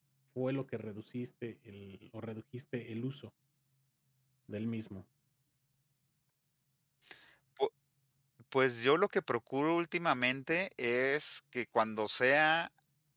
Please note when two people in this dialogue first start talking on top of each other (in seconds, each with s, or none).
none